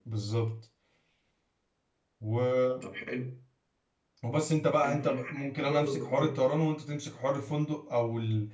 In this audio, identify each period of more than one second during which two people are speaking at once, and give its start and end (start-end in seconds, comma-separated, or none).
4.8-6.4